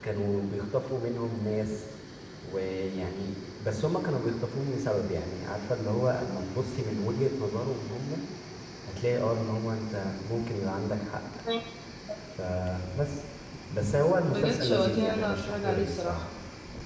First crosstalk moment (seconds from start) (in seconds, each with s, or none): 14.3 s